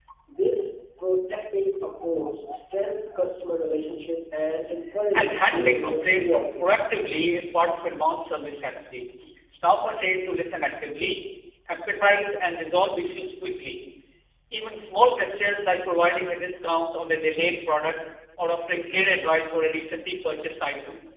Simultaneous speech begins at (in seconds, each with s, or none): 5.1 s